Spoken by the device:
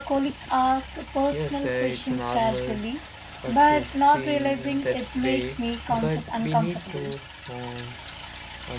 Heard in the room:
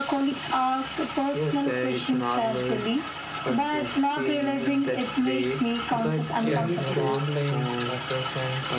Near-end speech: present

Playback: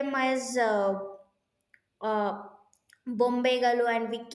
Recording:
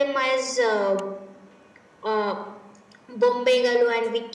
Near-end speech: none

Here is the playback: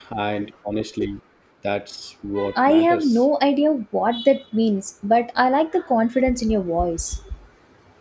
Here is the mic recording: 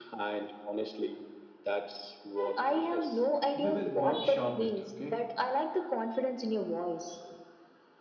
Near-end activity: present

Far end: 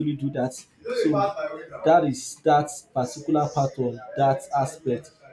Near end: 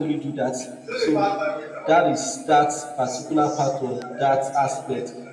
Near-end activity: none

